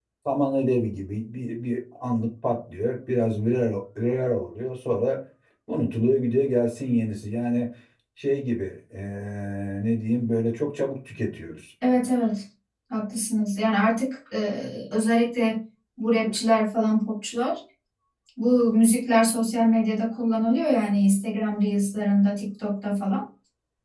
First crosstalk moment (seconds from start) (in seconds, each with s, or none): none